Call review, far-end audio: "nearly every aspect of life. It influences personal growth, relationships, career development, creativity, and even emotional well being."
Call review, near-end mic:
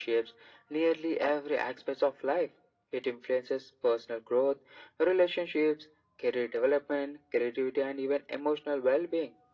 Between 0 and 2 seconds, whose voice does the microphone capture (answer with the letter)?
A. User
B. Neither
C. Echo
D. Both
C